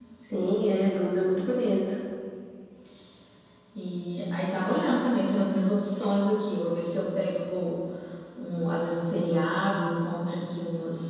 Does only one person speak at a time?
Yes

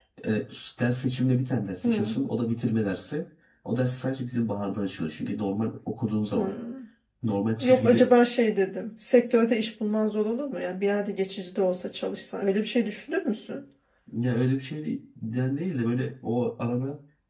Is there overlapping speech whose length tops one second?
No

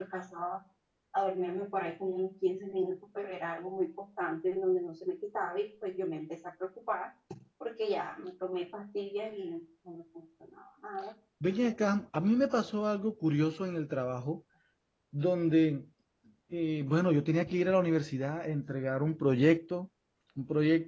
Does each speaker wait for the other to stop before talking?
Yes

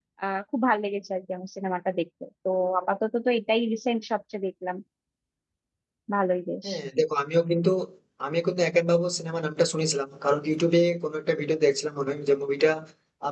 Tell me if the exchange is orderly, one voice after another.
Yes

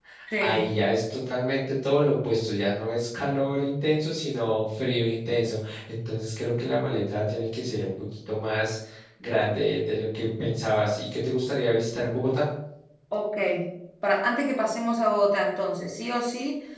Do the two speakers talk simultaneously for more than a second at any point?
No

